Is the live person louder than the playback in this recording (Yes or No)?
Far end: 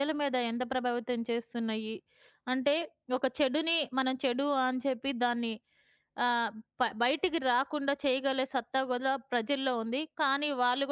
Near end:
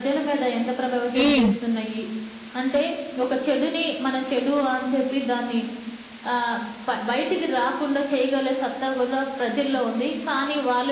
Yes